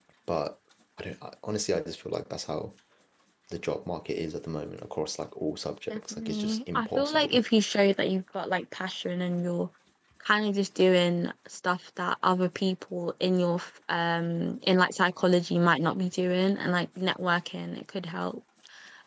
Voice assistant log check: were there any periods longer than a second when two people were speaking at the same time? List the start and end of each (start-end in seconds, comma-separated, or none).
5.9-7.4